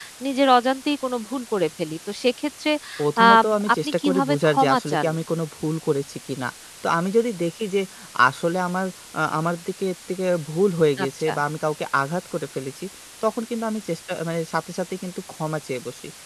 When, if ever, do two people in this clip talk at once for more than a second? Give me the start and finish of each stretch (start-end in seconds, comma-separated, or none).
3.7-5.1